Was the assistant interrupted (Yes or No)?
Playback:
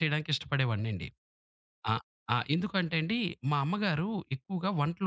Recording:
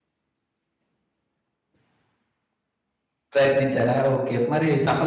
Yes